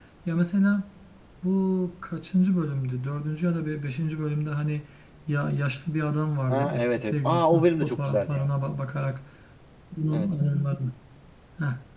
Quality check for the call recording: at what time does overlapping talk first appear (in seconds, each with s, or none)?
6.5 s